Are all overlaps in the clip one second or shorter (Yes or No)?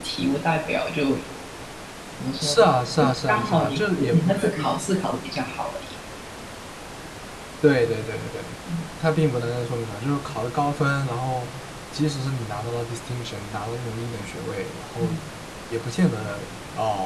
No